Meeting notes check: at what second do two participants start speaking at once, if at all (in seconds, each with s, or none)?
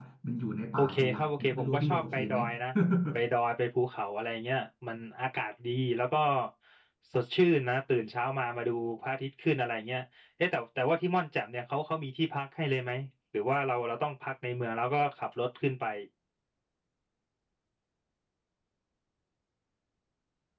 0.8 s